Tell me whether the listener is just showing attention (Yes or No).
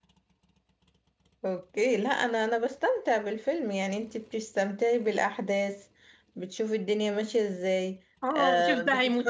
No